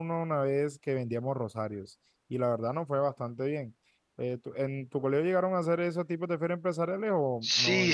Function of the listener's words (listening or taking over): taking over